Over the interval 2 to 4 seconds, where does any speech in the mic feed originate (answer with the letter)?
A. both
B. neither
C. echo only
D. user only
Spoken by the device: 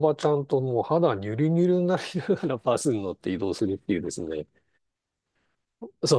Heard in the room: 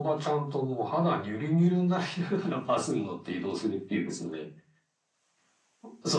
C